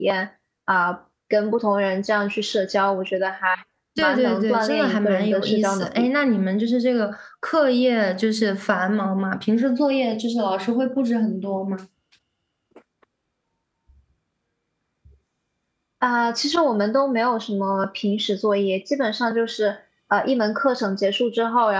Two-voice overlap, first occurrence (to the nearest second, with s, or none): 4 s